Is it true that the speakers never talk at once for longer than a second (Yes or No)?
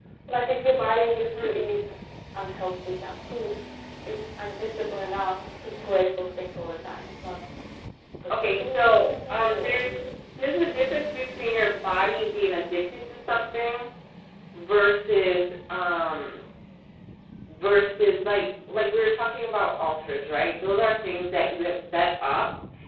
No